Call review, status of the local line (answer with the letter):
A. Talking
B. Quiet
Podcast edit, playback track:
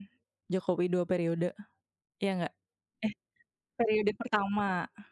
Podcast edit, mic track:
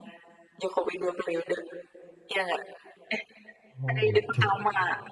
A